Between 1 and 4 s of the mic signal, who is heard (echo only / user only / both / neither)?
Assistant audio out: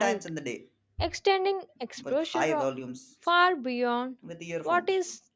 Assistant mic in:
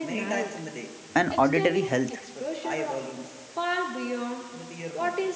both